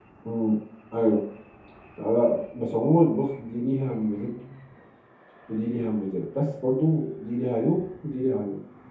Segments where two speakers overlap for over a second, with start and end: none

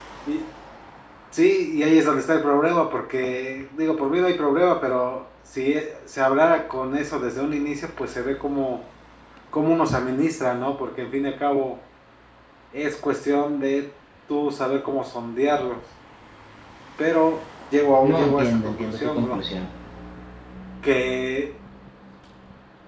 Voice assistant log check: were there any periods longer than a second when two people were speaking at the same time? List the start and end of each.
18.0-19.4

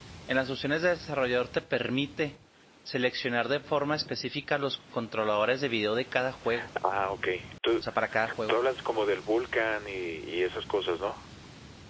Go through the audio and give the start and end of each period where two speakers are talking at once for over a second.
none

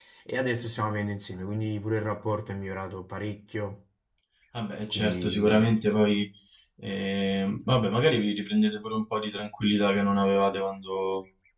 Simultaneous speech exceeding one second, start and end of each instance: 4.9-6.1

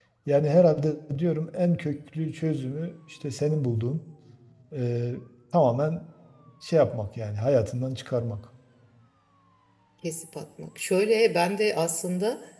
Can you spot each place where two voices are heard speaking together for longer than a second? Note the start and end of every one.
none

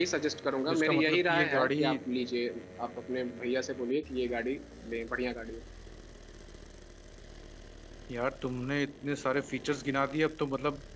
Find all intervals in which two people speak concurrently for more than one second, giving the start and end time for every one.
0.7-2.0

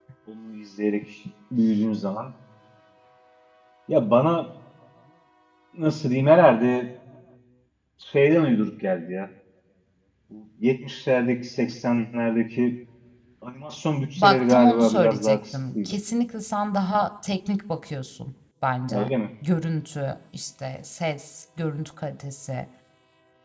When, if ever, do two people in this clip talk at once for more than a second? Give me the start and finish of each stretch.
14.2-16.0

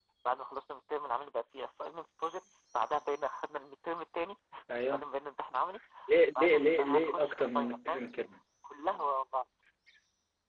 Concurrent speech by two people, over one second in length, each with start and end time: 6.3-8.0

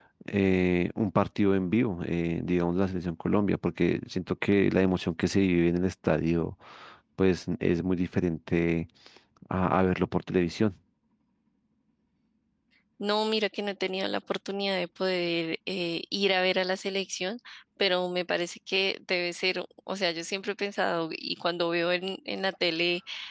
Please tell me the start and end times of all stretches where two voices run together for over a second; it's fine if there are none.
none

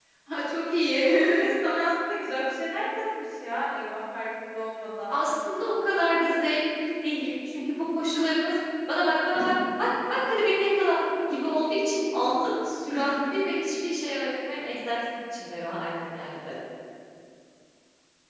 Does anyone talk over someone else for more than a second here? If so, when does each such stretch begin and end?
none

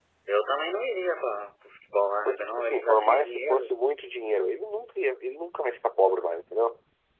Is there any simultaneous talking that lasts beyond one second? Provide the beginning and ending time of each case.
2.2-3.6

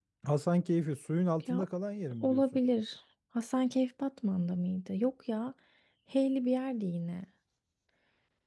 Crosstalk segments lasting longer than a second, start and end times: none

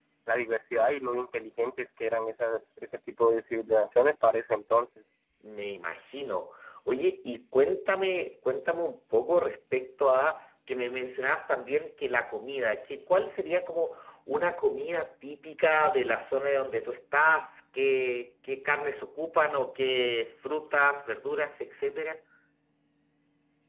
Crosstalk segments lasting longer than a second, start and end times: none

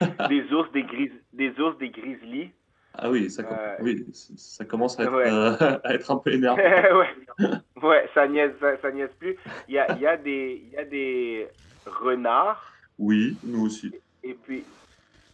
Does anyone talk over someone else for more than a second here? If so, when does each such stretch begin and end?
none

